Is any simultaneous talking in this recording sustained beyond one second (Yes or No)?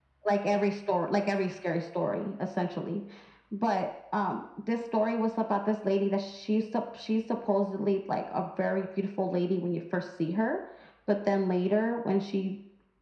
No